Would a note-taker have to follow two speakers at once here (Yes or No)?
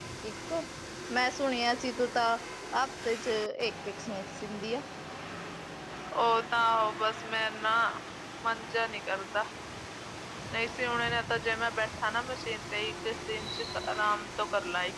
No